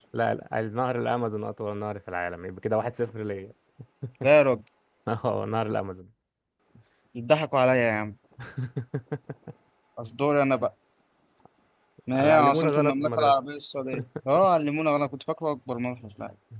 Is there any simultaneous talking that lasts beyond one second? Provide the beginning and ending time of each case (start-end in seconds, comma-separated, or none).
12.1-13.4